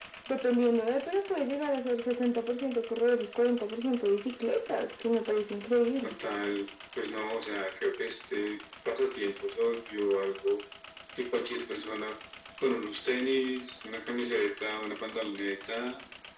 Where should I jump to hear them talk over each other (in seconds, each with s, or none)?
none